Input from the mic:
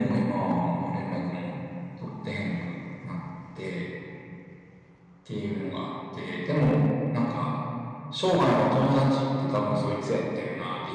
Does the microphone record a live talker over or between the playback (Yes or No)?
No